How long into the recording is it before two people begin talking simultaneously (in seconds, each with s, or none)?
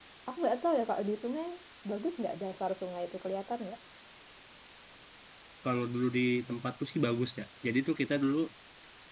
none